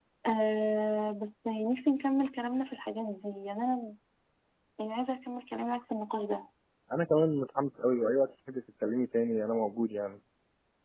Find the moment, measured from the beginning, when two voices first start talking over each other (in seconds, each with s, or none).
none